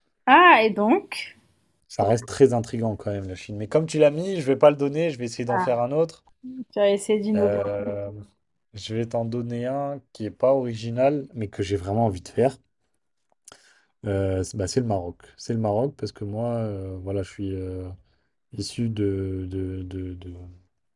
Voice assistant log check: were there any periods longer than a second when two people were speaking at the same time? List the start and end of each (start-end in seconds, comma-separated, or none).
none